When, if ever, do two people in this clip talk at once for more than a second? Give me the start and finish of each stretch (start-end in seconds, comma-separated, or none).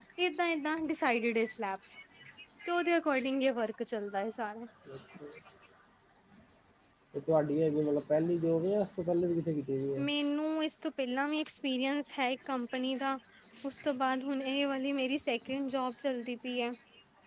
none